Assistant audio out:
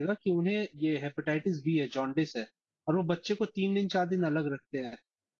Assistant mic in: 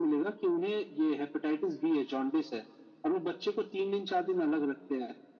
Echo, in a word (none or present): present